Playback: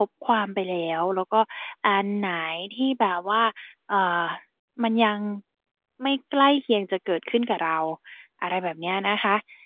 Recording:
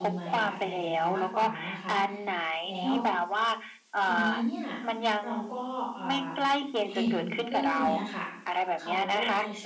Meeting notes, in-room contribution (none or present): present